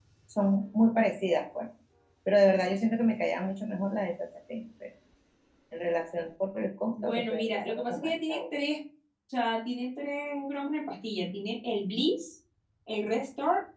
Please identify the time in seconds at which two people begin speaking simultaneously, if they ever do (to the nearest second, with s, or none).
7 s